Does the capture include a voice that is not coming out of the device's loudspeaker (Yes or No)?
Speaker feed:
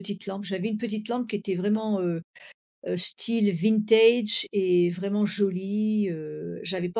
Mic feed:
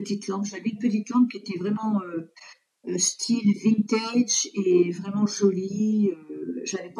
No